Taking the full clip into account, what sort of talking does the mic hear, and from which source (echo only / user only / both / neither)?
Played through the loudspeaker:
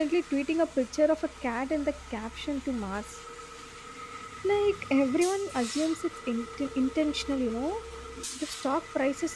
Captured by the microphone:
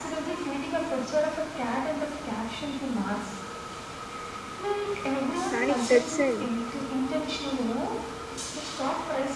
both